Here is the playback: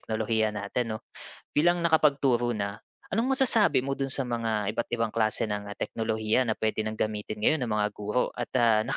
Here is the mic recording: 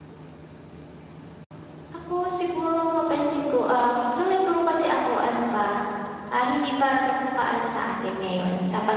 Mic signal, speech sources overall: user only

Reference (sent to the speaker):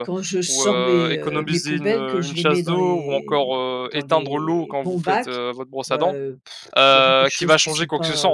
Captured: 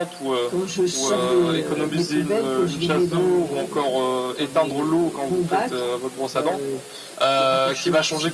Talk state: echo only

